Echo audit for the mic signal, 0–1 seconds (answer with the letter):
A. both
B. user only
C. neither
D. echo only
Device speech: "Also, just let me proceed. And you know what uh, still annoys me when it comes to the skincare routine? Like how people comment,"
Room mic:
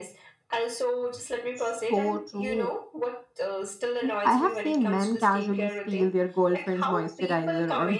D